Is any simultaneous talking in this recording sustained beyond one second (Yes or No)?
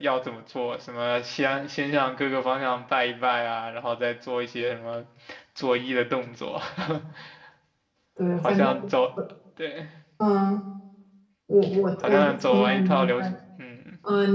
Yes